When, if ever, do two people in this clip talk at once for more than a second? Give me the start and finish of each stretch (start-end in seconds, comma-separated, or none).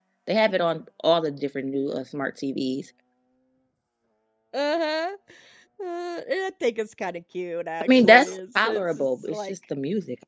7.8-9.5